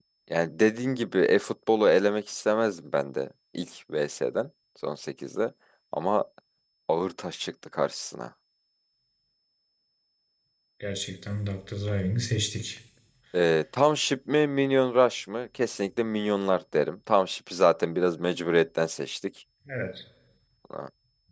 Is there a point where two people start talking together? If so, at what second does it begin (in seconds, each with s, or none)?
none